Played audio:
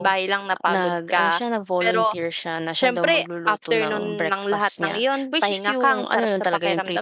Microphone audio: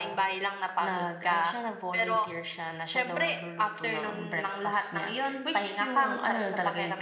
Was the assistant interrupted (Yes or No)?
No